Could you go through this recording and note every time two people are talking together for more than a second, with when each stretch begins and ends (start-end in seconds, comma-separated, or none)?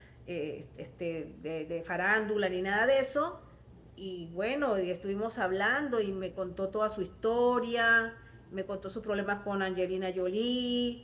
none